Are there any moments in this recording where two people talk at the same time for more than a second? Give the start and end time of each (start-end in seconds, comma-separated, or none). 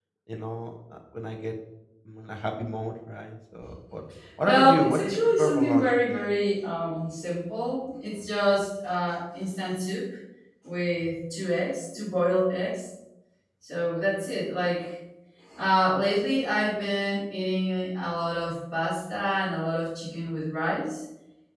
4.4-6.3